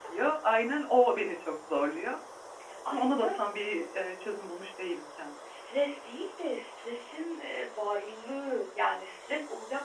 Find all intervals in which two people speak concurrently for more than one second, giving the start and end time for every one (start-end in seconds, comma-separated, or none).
none